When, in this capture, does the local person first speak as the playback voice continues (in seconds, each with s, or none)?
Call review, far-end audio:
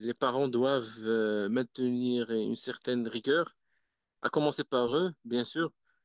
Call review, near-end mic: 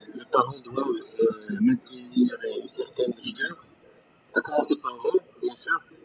none